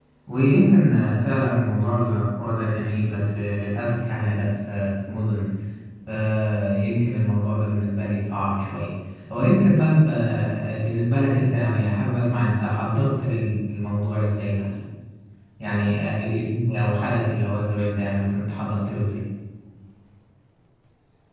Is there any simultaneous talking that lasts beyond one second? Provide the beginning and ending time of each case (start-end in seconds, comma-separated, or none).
none